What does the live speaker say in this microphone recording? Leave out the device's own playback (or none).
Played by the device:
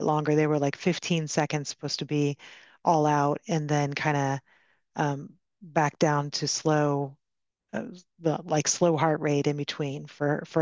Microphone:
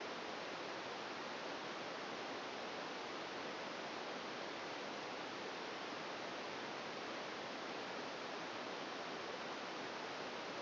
none